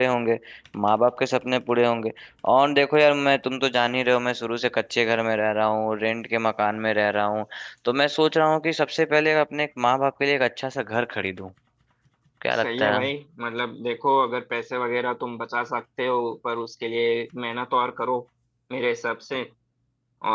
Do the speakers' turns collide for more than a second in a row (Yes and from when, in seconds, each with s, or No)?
No